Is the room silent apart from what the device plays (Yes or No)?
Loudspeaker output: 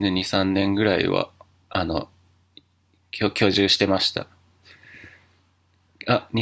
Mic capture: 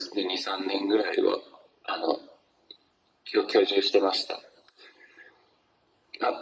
Yes